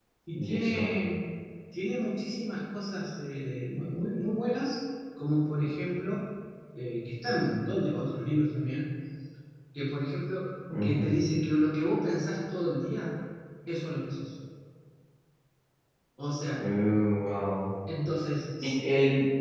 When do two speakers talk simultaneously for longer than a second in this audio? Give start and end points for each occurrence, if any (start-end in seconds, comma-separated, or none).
none